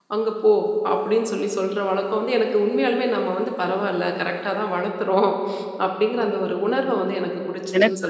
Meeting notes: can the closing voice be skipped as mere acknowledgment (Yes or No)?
No